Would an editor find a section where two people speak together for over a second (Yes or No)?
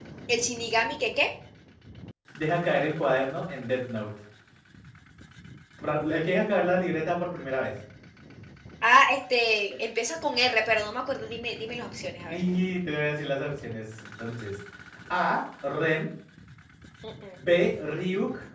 No